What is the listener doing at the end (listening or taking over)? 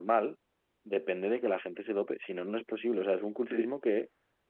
listening